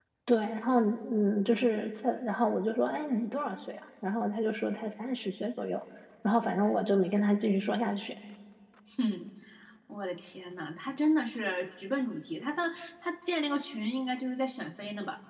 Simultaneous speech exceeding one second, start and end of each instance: none

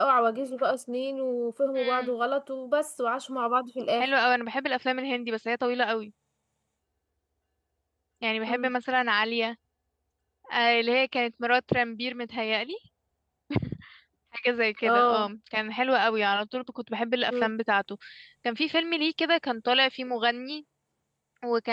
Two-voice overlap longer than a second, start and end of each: none

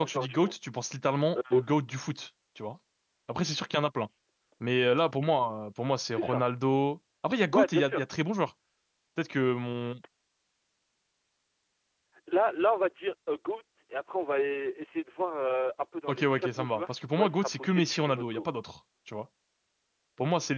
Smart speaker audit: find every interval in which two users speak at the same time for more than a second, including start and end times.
16.1-18.5

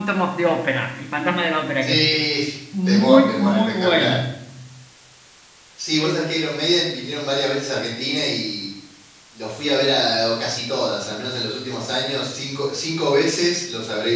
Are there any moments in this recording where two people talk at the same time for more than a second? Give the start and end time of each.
2.9-4.2

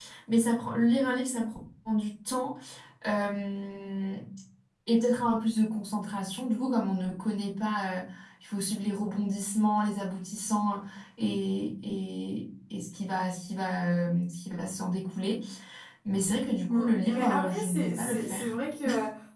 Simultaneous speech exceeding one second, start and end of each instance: 16.7-18.6

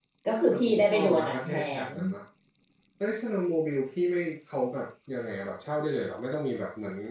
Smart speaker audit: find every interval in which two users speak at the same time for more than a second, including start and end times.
0.5-1.8

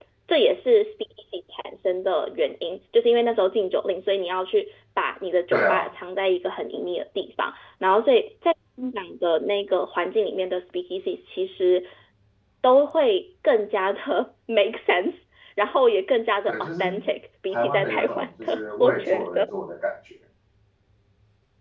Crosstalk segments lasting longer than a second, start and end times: 17.5-19.4

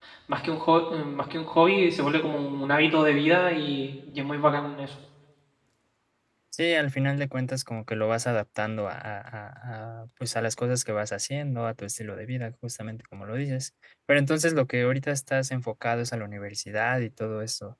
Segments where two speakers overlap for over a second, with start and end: none

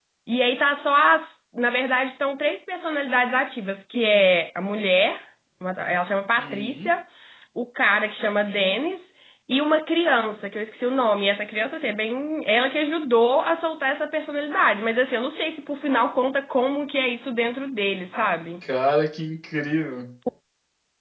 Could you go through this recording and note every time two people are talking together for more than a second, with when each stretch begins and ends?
none

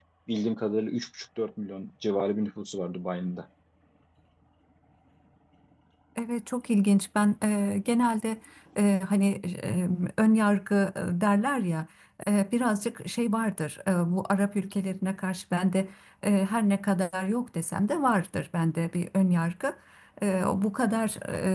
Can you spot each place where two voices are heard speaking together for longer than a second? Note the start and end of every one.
none

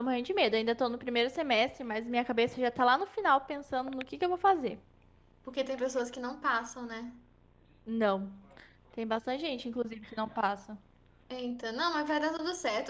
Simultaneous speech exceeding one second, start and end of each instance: none

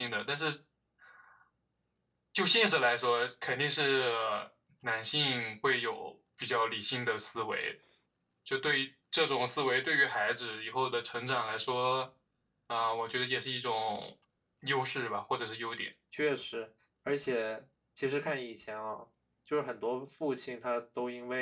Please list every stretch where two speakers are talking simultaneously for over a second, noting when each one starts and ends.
none

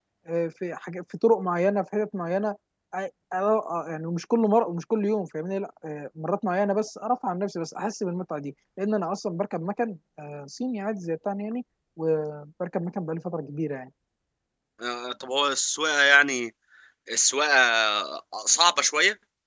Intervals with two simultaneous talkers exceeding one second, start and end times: none

